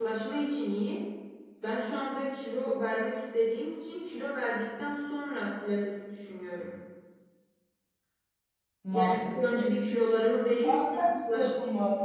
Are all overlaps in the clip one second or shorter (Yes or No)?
No